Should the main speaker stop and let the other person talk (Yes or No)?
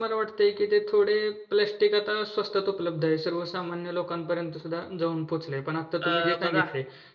No